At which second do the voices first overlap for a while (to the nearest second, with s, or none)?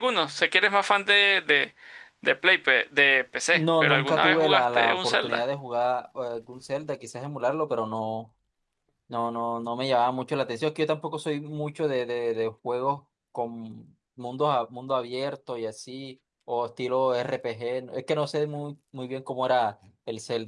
4 s